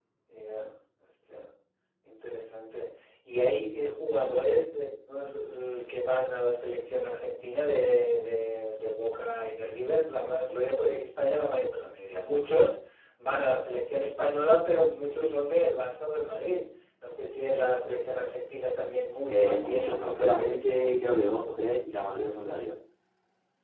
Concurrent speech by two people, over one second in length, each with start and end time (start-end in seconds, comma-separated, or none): 19.3-20.9